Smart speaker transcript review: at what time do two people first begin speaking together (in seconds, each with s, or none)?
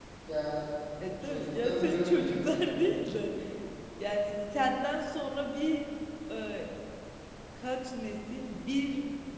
1.2 s